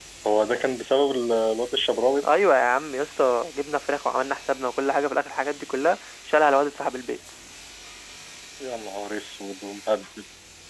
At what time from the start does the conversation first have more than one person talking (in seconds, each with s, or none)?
none